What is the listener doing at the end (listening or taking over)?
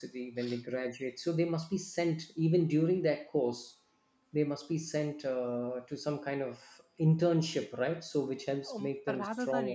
taking over